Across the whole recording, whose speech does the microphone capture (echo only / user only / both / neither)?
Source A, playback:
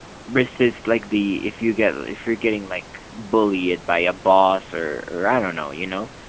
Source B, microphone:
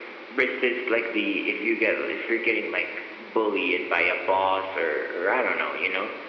echo only